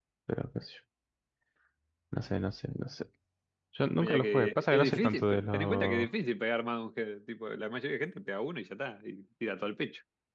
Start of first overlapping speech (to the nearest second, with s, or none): 4 s